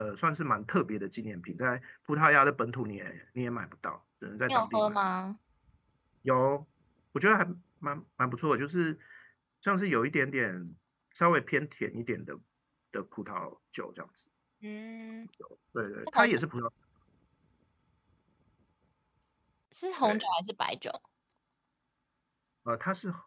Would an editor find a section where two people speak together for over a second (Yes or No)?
No